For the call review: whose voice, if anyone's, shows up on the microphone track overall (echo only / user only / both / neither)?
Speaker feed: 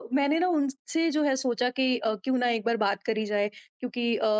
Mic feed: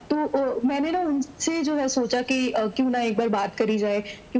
echo only